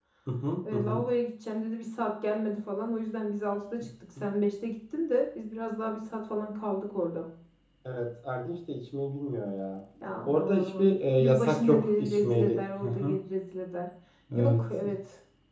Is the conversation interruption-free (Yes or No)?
No